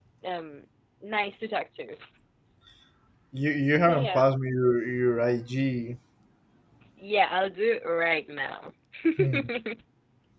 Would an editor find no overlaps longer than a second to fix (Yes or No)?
Yes